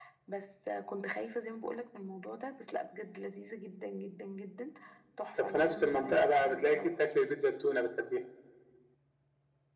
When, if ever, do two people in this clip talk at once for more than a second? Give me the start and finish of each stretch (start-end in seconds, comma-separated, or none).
5.4-6.9